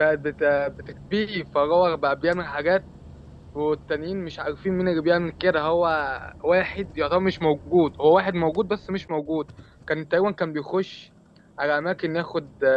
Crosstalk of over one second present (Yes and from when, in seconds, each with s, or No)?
No